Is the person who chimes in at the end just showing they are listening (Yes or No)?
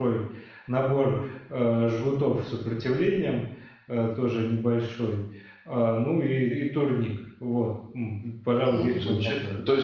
No